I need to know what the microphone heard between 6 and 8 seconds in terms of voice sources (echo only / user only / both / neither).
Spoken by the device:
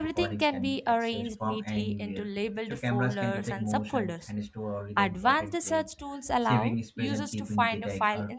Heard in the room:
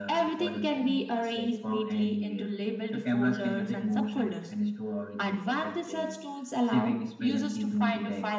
echo only